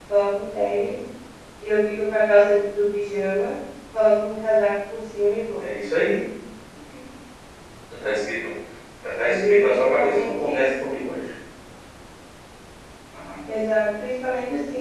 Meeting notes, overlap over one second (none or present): present